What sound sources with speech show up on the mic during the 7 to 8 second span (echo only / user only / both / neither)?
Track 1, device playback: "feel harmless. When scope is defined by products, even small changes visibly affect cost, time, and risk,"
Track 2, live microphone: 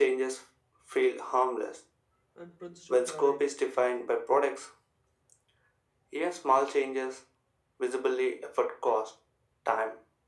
echo only